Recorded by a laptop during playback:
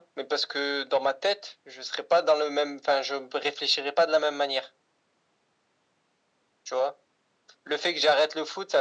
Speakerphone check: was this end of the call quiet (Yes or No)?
Yes